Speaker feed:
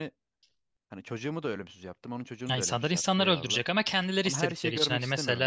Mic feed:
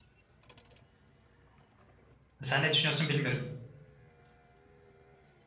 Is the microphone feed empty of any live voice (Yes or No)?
No